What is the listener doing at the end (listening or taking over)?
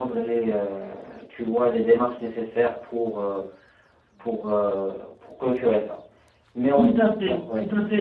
taking over